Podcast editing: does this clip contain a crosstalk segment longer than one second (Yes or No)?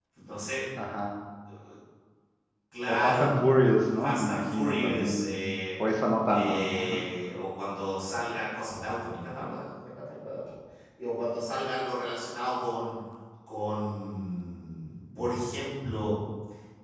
Yes